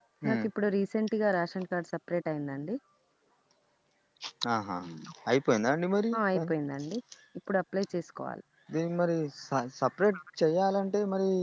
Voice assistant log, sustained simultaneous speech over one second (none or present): none